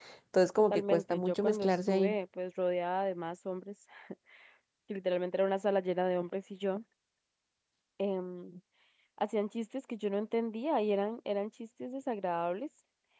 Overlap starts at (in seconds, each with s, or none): 0.6 s